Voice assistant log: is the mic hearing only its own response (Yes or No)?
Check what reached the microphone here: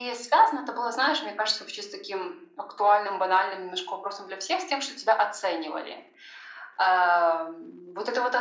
Yes